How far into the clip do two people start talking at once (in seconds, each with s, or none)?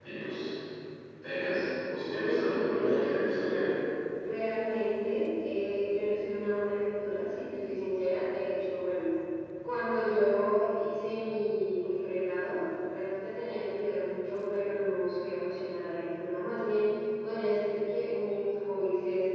2.1 s